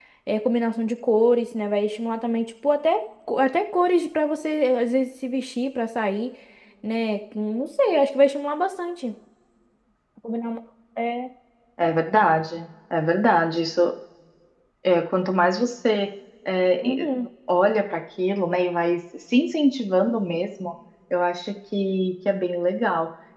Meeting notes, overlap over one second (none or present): none